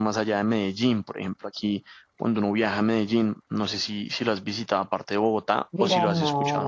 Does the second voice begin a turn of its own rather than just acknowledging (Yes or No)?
Yes